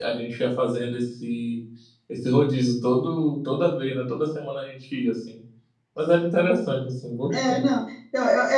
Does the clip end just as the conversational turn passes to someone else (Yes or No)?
Yes